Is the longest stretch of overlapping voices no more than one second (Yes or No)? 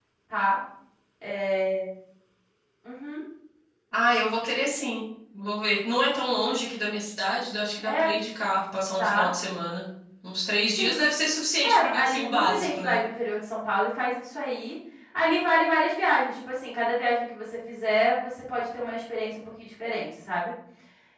No